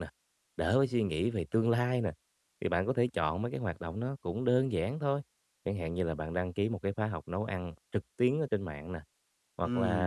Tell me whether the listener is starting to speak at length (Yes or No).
No